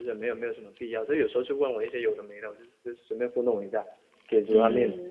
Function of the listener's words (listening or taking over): taking over